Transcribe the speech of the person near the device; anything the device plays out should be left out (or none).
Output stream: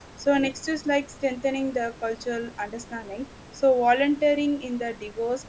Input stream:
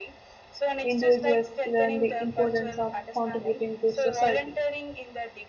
individuals learn the importance of contributing to society